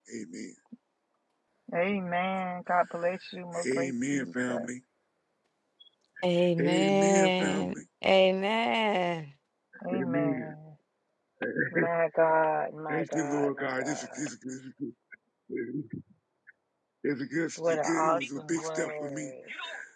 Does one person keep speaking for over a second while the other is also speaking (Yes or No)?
Yes